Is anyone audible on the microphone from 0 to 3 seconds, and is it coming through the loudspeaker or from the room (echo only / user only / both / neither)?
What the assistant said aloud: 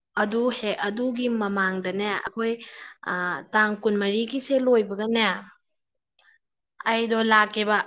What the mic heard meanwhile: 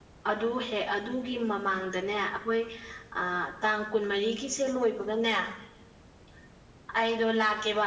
echo only